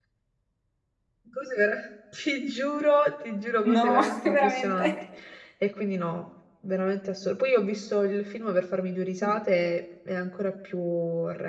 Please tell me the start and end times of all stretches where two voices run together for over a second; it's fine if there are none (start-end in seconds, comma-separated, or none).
3.6-4.9